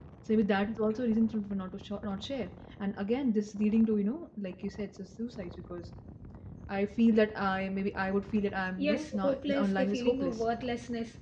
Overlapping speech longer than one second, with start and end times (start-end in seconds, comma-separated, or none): 8.8-10.4